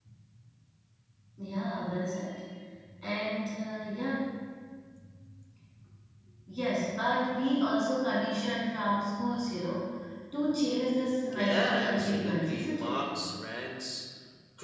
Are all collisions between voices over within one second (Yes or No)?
No